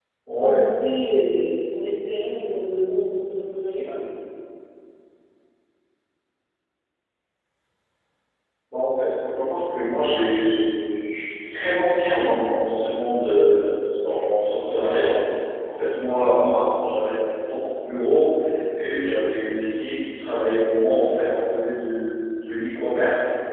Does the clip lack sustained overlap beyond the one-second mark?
Yes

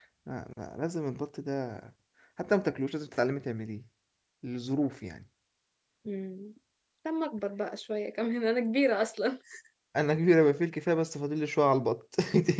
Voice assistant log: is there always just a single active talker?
Yes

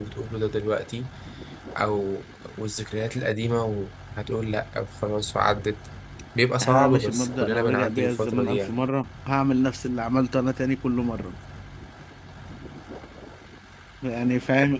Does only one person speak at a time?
No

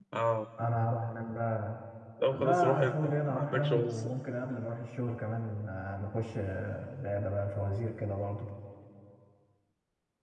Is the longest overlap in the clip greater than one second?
Yes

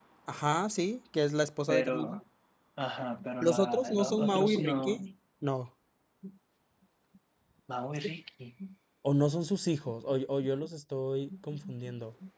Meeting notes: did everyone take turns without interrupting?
No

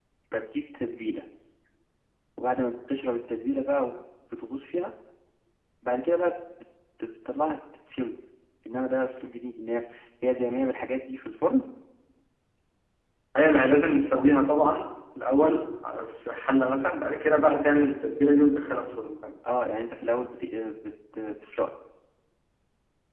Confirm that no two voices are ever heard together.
Yes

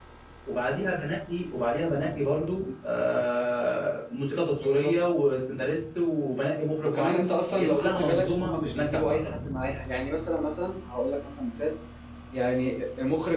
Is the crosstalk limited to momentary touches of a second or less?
No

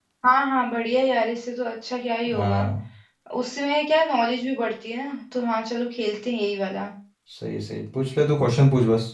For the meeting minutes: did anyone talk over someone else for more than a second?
No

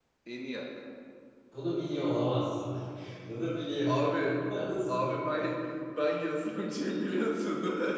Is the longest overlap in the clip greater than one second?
No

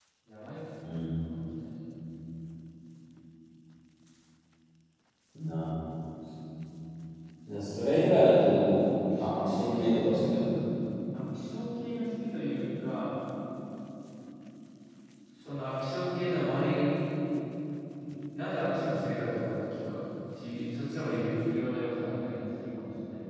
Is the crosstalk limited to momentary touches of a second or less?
No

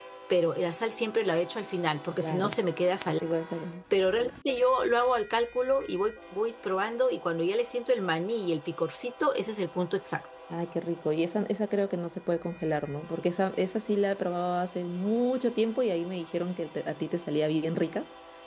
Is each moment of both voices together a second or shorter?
Yes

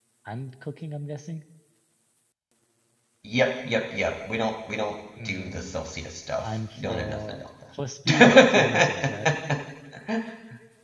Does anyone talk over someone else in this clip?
Yes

